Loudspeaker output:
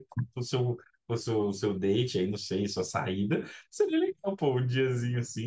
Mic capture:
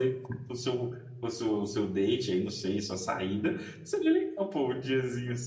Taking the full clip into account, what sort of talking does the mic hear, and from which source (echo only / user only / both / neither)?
echo only